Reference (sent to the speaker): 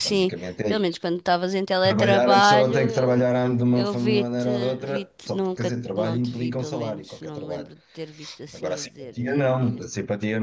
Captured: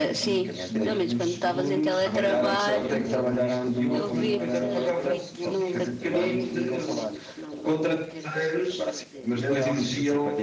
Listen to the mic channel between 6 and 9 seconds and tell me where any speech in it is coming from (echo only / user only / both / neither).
both